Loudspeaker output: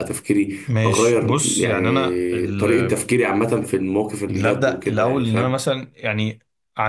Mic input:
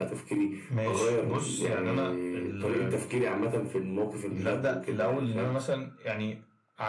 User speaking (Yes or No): No